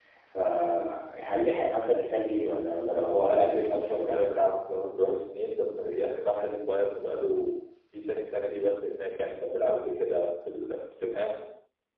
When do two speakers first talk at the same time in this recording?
2.9 s

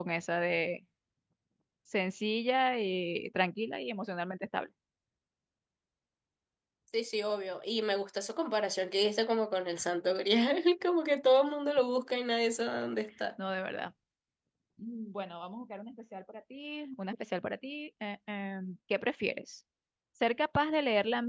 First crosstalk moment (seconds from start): none

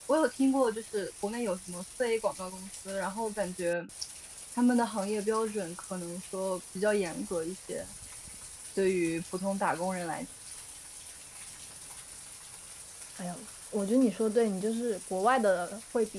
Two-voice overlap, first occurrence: none

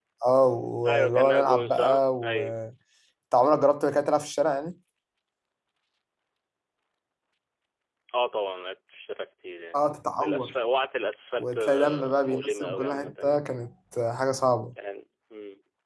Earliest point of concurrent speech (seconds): 0.9 s

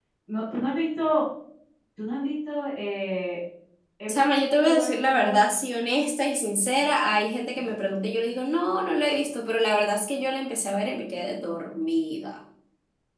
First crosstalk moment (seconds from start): 4.1 s

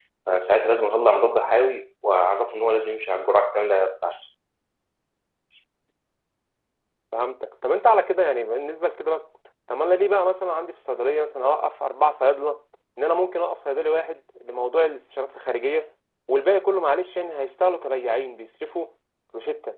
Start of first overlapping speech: none

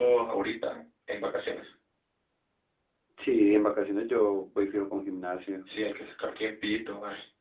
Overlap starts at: none

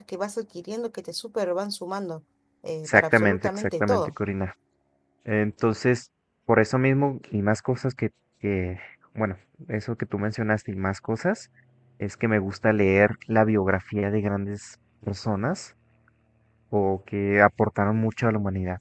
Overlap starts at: 2.9 s

